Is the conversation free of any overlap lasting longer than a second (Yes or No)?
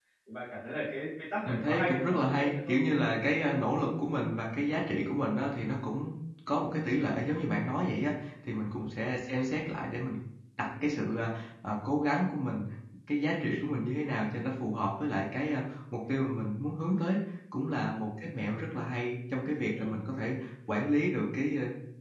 No